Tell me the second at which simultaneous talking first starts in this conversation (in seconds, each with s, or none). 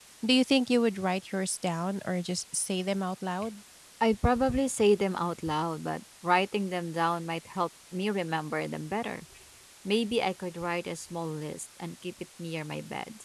none